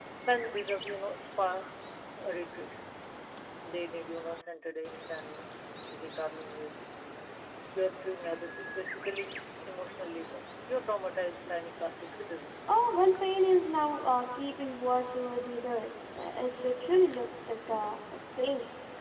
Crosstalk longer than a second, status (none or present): none